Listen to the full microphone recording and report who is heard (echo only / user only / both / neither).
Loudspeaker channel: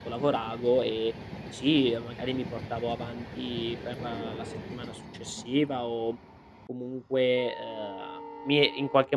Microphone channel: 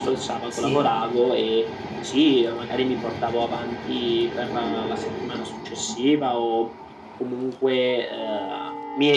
both